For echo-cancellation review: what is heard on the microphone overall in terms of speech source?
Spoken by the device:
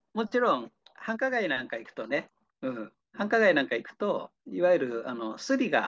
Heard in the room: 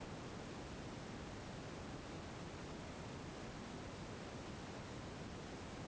neither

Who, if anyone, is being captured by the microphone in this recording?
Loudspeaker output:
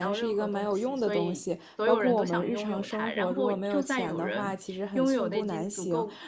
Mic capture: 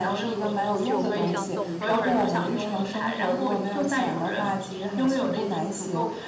both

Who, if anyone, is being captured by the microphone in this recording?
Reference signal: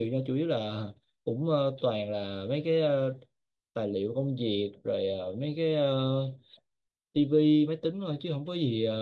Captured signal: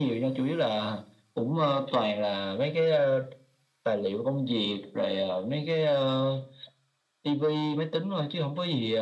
echo only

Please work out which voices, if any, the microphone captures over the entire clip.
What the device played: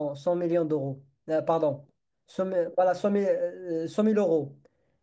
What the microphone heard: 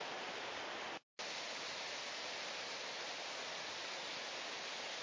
neither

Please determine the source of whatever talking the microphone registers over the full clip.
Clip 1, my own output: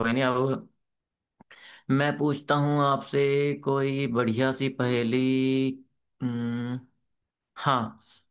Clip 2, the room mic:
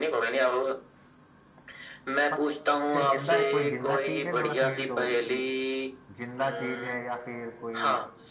both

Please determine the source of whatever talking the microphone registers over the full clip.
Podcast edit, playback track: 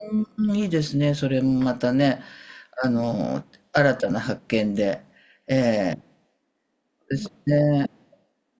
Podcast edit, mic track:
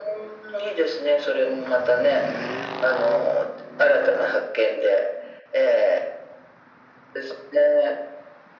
echo only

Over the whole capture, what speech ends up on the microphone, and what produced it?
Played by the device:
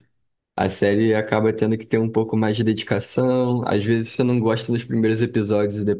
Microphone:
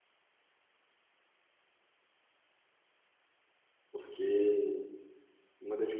user only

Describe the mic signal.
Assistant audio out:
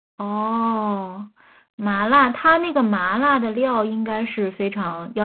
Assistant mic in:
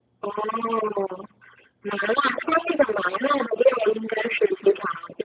echo only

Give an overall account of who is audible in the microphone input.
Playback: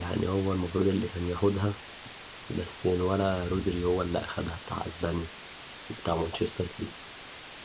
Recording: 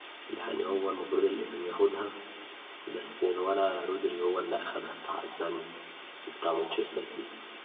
echo only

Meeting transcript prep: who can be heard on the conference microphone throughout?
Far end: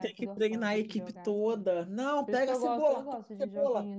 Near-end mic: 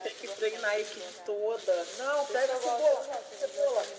echo only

